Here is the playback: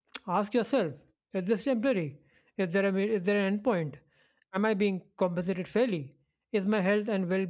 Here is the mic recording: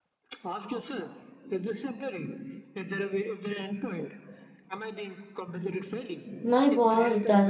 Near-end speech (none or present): present